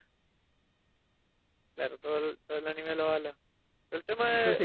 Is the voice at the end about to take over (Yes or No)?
Yes